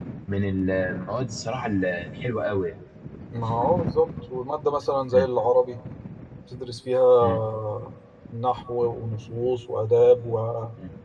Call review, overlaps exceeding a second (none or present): none